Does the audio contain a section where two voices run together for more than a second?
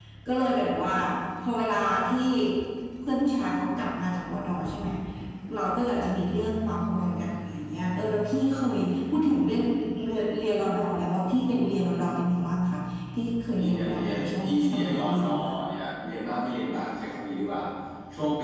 Yes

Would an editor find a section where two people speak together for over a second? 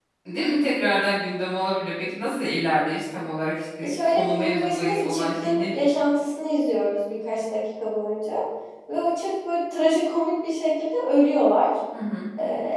Yes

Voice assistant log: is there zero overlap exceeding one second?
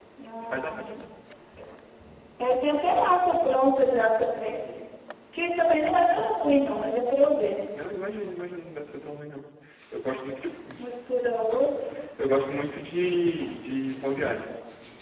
Yes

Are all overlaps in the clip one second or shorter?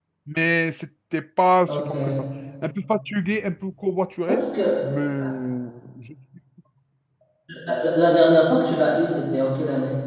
Yes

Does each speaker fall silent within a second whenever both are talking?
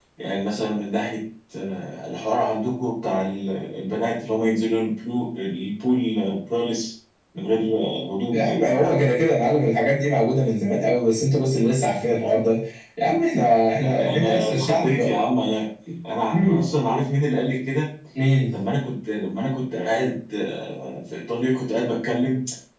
No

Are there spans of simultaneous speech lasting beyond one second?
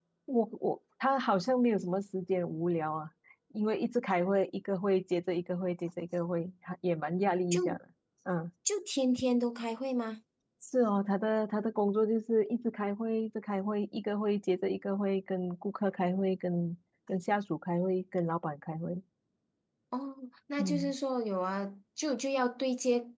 No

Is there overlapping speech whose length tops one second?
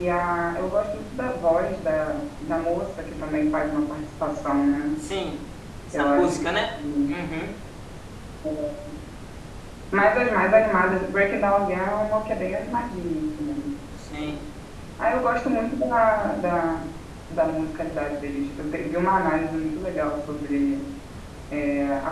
No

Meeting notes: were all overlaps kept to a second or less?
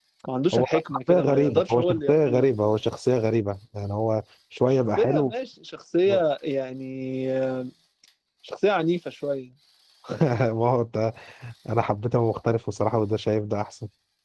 No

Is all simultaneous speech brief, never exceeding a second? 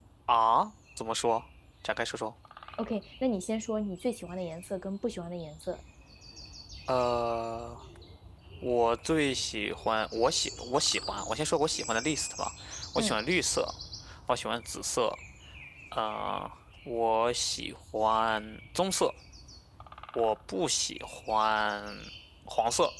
Yes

